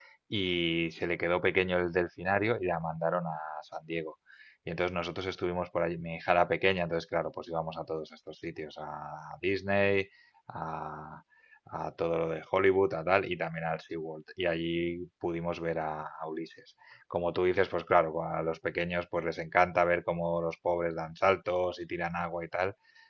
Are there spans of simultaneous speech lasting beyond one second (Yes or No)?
No